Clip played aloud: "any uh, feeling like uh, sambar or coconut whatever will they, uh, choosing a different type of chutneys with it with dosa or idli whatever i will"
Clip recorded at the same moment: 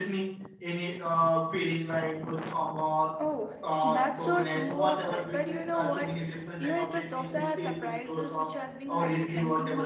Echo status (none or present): present